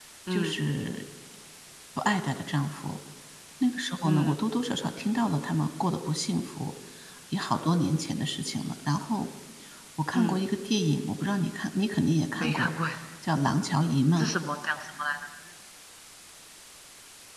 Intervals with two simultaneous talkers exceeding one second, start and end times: none

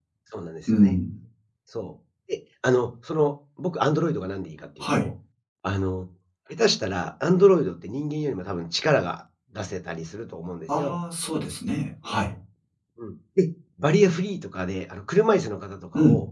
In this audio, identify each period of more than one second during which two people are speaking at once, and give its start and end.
none

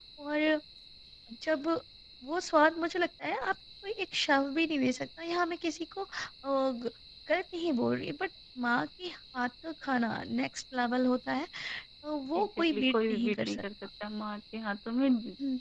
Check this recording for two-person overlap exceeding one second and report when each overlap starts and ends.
12.4-13.6

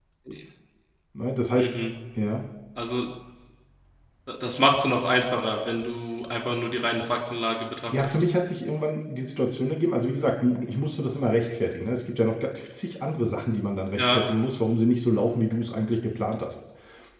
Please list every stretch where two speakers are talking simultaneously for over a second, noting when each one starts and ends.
none

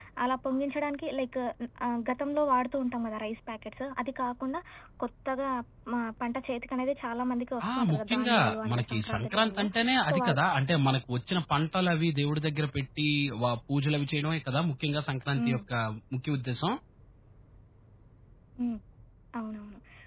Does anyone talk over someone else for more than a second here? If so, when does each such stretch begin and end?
7.7-9.7

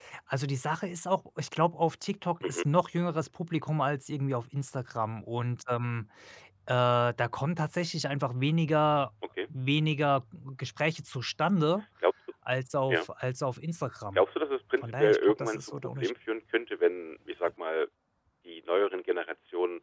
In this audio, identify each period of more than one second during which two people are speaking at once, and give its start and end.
14.8-16.1

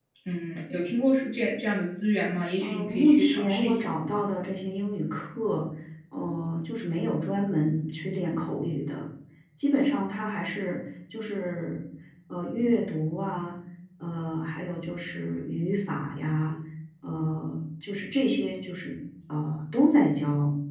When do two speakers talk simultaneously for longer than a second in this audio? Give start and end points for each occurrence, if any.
2.6-3.9

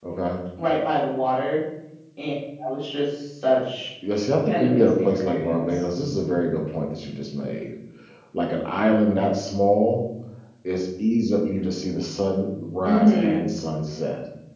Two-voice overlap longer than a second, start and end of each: 4.5-5.8

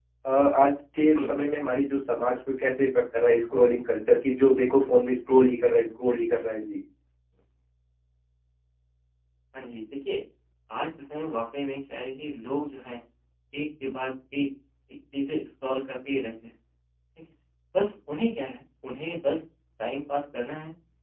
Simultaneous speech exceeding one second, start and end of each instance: none

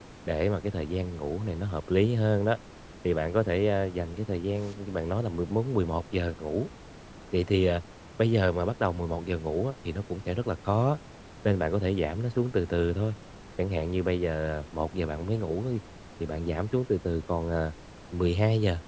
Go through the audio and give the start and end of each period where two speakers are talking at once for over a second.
none

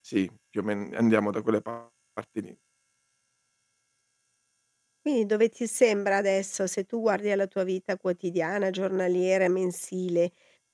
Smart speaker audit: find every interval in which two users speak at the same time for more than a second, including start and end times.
none

